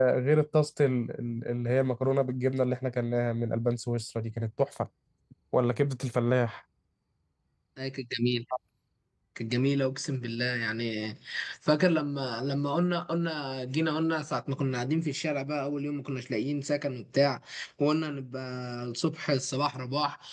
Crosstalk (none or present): none